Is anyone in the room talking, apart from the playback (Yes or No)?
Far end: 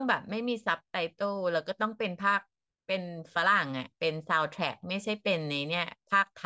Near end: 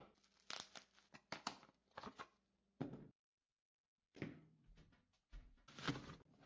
No